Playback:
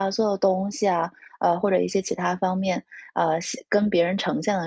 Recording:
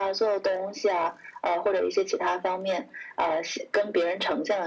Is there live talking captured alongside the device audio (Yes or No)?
No